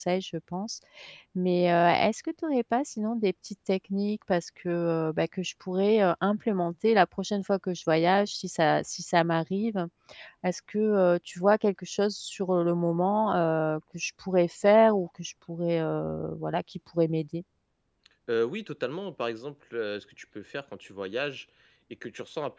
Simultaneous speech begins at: none

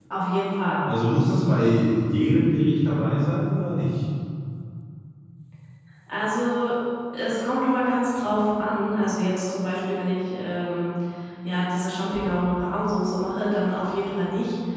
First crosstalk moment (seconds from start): none

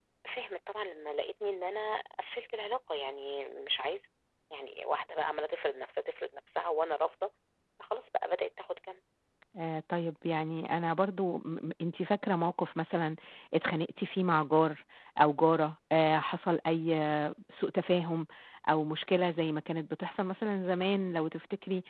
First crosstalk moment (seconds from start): none

